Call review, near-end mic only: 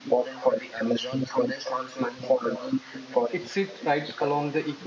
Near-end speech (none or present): present